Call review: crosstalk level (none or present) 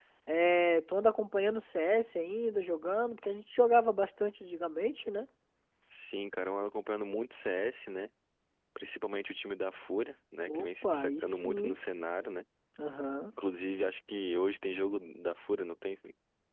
present